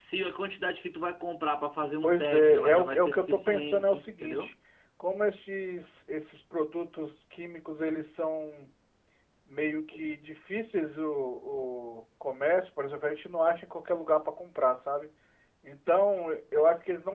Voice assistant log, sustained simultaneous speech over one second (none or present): present